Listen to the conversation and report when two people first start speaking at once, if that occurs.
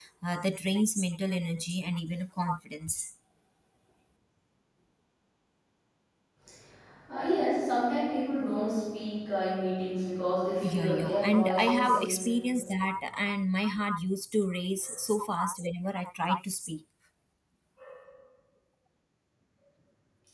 10.6 s

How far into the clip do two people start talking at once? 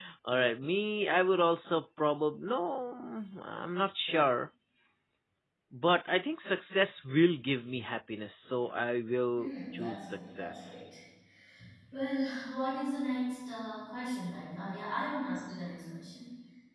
9.4 s

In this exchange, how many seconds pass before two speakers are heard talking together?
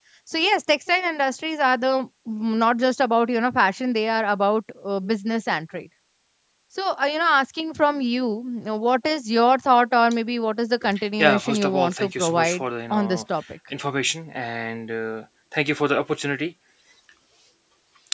11.2 s

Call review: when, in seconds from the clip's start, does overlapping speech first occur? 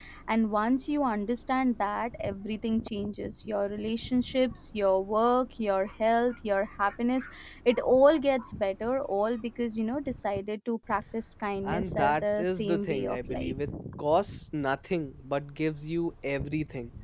11.7 s

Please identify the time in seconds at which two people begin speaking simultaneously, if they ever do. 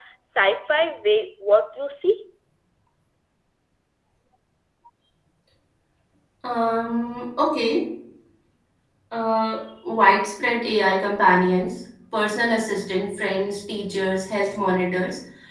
none

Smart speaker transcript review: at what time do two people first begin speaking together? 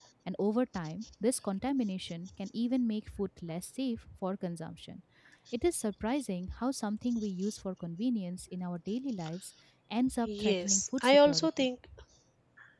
10.3 s

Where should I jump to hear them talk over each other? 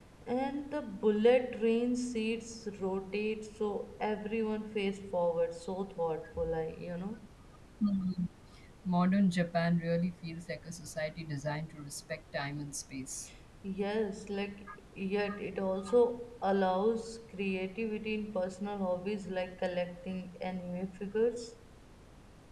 none

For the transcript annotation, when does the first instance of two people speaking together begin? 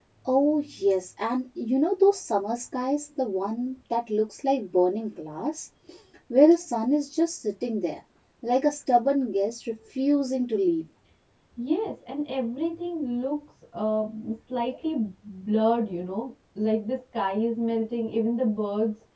none

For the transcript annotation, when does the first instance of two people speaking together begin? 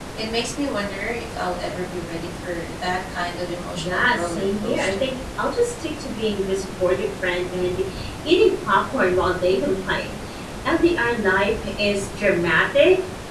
3.7 s

